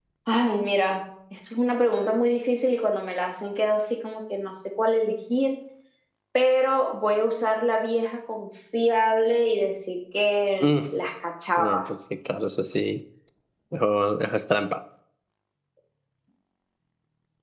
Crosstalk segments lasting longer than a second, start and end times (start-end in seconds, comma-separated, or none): none